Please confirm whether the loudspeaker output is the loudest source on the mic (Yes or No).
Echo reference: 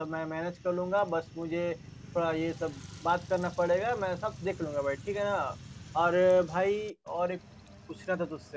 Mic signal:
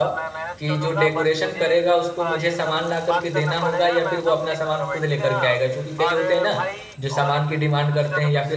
No